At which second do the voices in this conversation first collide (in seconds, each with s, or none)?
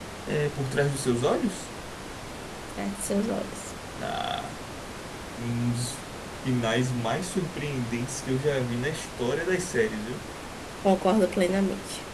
none